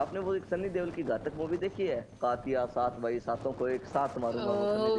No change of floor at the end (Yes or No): No